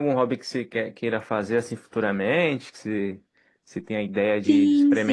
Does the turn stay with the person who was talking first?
No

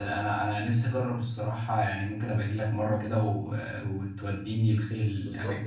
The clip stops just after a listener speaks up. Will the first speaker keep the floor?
No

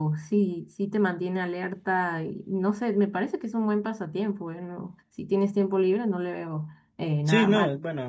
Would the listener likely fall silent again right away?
No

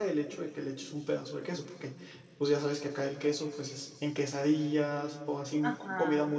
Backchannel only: No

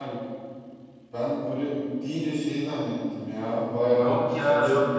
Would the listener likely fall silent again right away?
No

